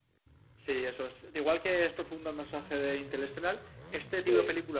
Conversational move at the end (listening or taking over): listening